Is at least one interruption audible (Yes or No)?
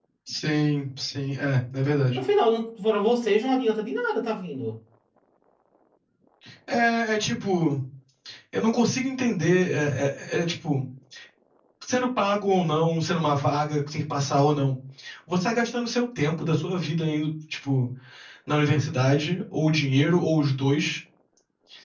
No